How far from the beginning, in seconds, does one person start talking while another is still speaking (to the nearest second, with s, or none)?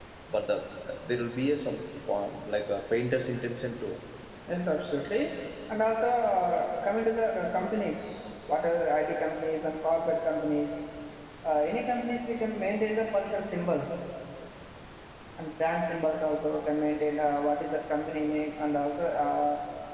none